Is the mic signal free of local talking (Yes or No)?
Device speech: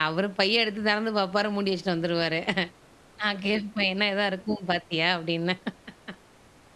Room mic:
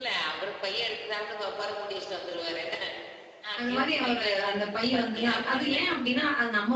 No